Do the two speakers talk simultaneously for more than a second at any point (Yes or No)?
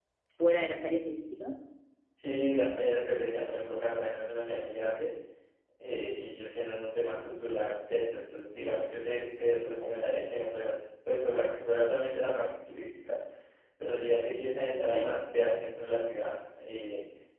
No